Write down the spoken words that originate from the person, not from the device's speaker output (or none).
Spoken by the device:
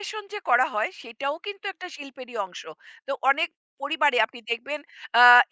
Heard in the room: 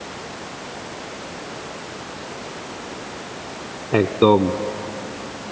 একদম।